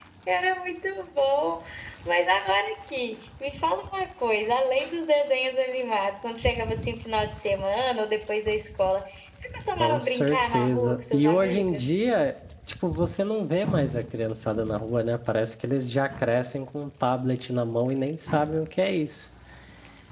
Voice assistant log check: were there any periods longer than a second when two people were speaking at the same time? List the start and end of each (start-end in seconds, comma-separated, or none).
9.8-11.8